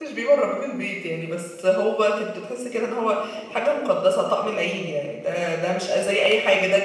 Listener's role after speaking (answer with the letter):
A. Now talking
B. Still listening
B